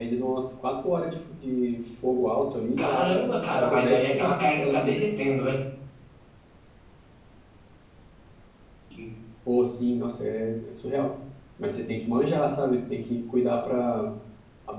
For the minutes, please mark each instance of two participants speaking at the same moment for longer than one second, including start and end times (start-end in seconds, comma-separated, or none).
2.8-5.1